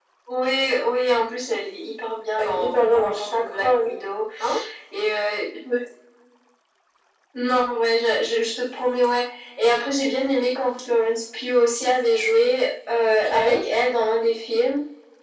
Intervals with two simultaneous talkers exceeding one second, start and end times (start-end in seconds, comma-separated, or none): 2.4-3.9